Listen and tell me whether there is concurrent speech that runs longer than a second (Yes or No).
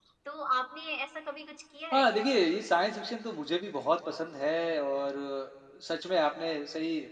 No